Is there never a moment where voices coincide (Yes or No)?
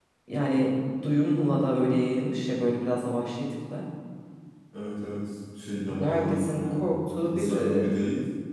No